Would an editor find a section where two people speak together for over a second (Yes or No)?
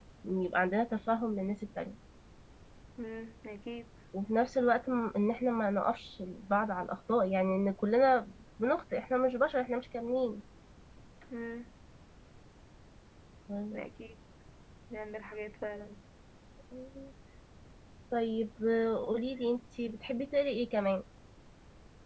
No